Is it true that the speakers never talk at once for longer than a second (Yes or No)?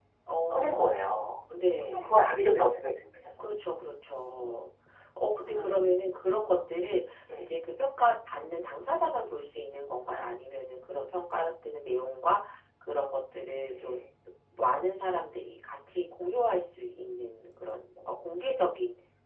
Yes